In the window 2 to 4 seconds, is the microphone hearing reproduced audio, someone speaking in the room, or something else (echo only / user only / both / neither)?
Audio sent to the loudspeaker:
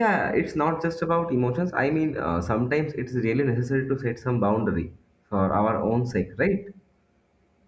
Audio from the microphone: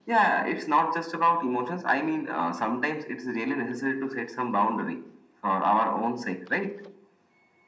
echo only